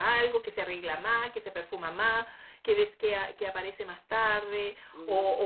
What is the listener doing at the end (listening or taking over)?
listening